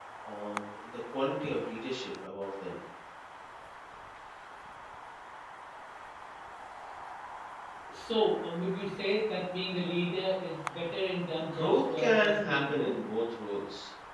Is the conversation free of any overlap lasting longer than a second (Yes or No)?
No